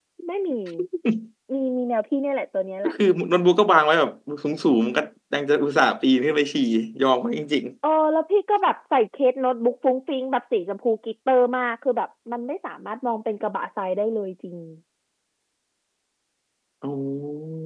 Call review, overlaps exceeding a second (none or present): none